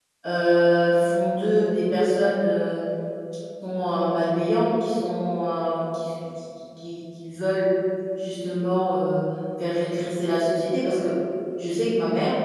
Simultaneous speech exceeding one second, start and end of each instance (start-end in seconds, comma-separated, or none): none